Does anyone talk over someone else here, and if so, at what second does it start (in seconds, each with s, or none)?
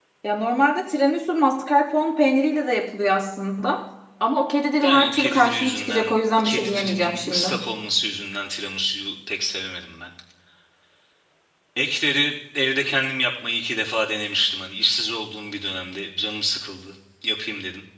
4.8 s